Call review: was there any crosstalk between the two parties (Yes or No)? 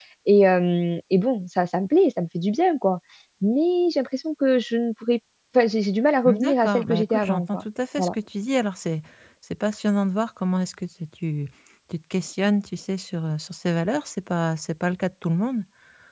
Yes